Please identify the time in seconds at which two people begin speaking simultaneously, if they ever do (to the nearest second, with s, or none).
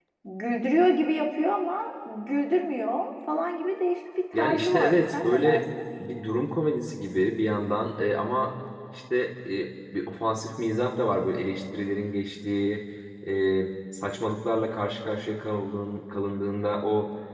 4 s